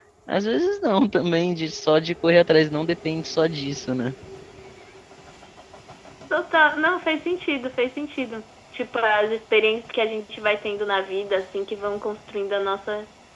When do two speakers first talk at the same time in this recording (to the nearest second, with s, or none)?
none